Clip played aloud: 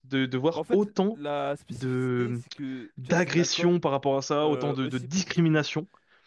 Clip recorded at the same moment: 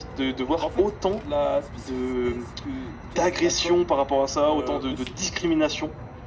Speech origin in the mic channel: echo only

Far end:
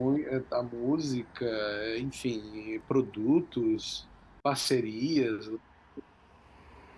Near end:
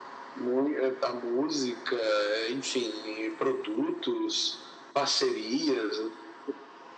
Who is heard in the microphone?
echo only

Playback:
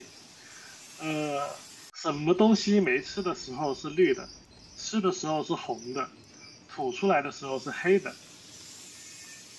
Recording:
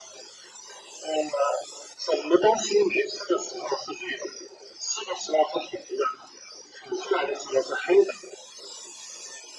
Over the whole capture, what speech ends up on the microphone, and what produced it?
echo only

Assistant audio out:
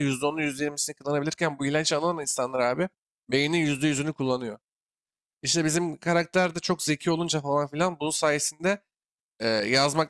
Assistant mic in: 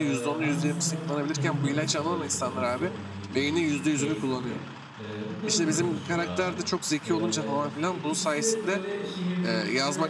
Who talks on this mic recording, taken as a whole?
both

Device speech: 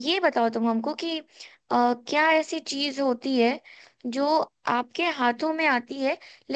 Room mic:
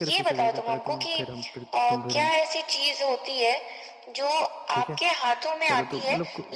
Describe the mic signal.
both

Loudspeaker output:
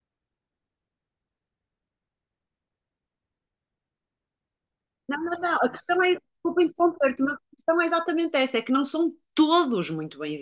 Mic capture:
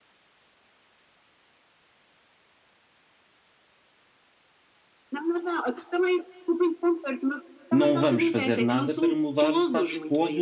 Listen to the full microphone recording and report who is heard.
both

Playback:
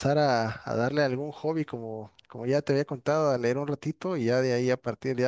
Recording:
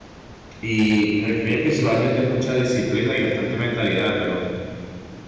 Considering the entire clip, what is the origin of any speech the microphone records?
user only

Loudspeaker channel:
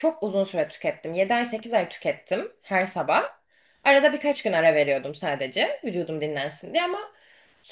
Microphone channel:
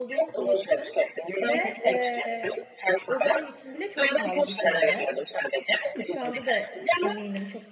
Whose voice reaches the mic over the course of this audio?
both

